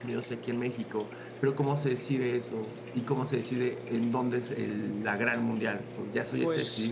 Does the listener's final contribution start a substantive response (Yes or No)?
Yes